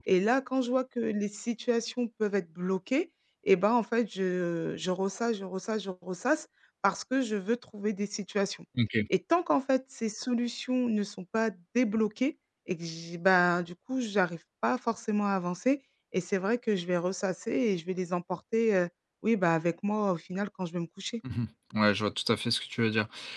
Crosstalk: none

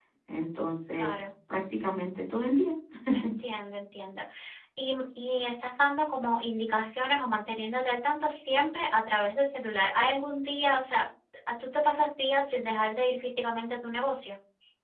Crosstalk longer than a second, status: none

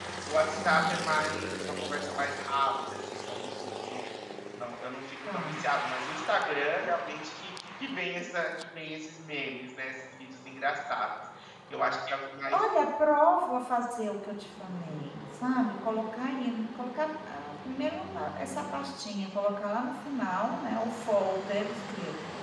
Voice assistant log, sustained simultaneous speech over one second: none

